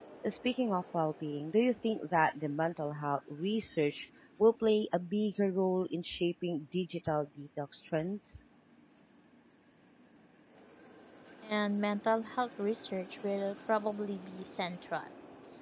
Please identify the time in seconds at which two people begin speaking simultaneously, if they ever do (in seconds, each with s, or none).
none